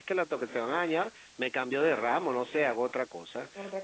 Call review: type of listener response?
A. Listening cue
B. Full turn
A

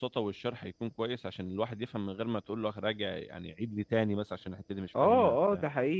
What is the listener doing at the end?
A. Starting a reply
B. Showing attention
A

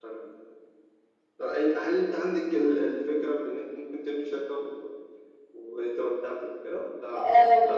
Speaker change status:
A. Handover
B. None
A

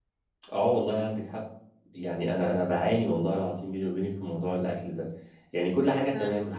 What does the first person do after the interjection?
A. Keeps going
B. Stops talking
A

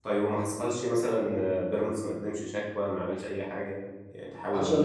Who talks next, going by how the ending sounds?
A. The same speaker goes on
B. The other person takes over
B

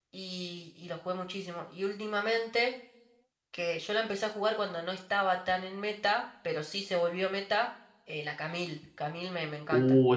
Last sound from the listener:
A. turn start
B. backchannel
A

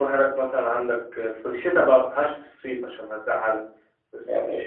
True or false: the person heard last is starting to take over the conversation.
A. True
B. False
B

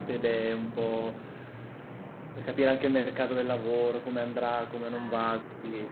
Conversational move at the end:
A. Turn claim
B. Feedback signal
B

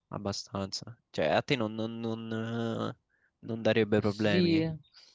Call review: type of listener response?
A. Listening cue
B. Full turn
B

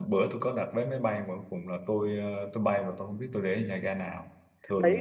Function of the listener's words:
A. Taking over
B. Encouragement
A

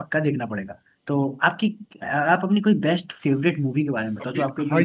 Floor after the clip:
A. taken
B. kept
A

